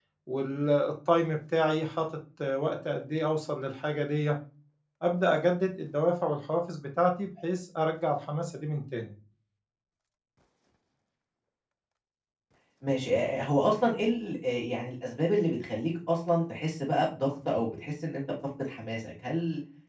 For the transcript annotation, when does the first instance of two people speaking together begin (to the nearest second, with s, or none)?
none